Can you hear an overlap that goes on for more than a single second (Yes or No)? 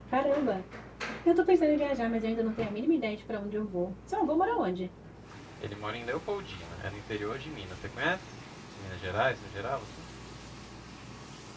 No